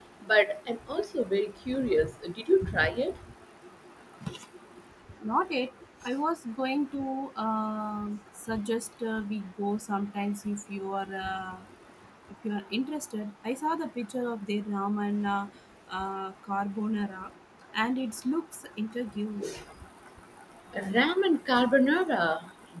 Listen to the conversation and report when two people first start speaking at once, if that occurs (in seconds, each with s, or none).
none